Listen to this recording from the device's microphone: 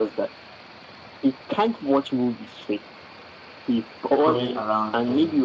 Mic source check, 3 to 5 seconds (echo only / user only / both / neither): both